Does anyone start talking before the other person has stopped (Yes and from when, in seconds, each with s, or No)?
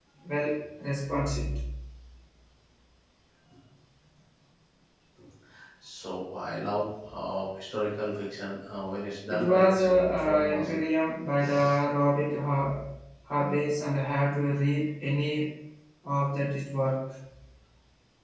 Yes, from 9.3 s